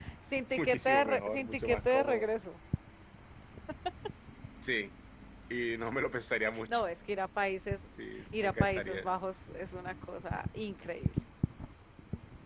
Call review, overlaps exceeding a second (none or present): present